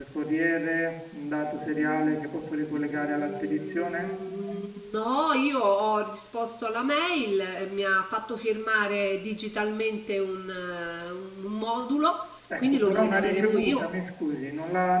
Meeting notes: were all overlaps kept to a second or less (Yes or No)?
No